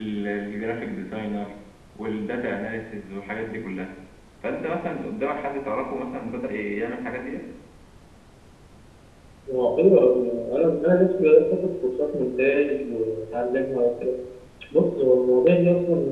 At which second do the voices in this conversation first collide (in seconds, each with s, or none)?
none